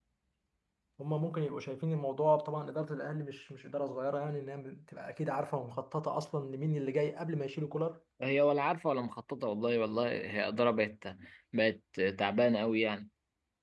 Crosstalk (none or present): none